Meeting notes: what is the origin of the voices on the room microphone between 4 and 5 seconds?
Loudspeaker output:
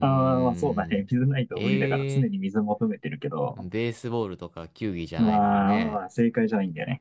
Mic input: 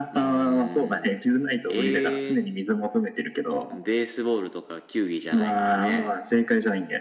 echo only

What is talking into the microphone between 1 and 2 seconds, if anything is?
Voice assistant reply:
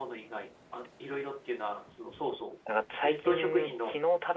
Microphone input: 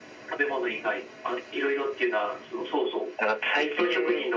echo only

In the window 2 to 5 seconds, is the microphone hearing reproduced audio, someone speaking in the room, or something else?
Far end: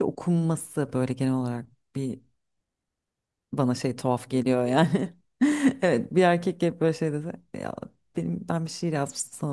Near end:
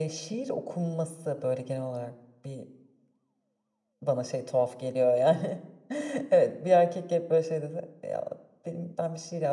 echo only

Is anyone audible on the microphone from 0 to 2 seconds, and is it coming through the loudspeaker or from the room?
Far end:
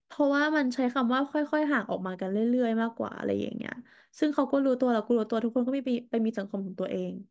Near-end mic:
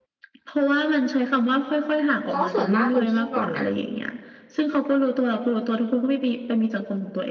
echo only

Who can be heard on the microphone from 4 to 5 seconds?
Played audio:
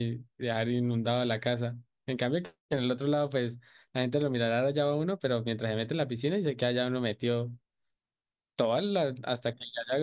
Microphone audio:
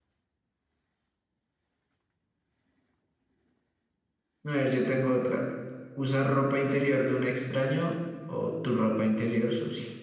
user only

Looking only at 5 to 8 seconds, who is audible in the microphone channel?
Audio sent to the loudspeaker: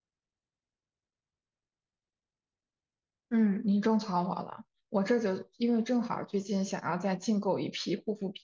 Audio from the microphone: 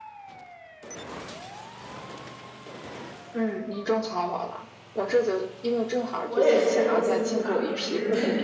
both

